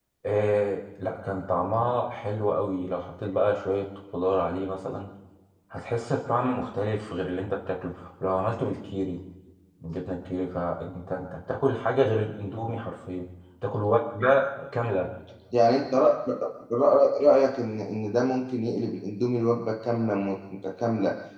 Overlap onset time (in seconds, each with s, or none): none